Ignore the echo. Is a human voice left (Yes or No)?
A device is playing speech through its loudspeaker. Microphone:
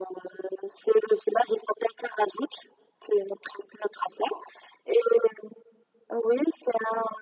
No